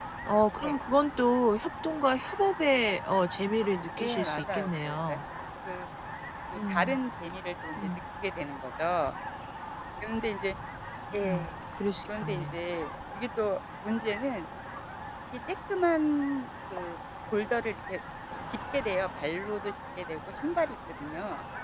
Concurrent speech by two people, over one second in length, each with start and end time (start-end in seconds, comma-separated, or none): 4.0-5.2